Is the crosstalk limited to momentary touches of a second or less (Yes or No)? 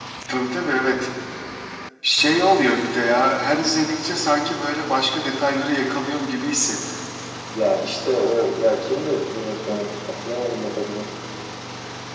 Yes